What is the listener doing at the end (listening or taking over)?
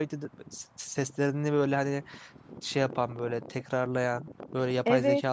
taking over